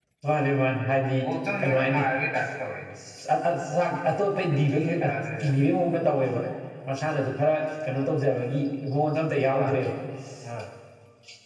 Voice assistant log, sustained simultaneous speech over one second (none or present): none